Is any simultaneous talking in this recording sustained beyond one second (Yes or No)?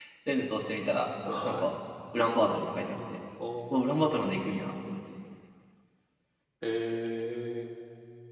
No